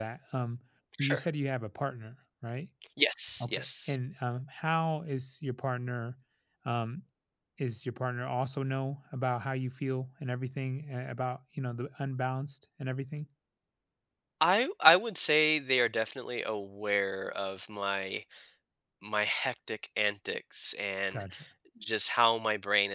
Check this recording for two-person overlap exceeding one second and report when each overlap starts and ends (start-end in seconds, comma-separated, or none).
none